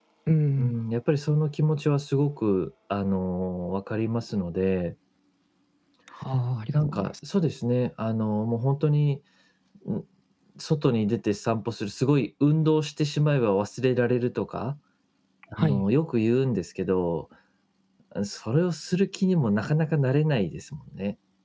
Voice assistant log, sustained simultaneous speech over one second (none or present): none